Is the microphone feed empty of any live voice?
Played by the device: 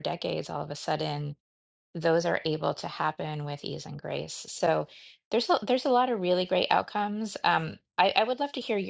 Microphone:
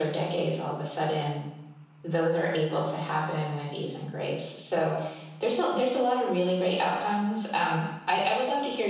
Yes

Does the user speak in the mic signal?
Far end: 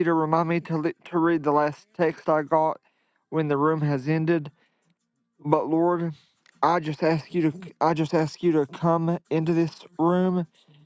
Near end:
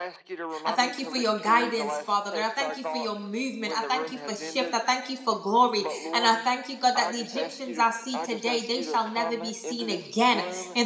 Yes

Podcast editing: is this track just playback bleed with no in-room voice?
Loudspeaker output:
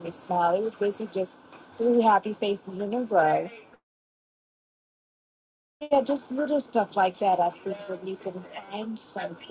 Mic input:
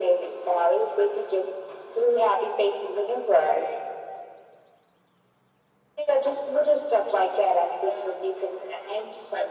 Yes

